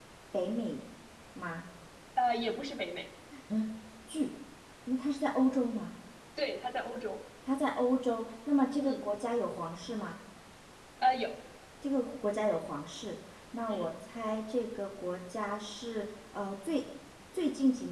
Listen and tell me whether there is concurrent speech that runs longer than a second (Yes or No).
No